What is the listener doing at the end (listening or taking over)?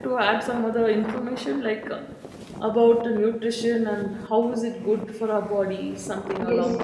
taking over